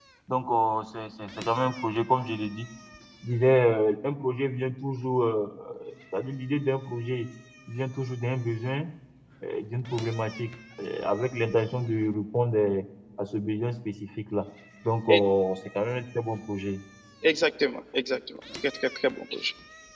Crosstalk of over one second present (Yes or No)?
No